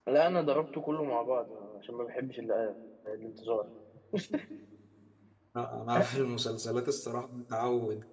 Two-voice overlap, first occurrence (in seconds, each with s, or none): none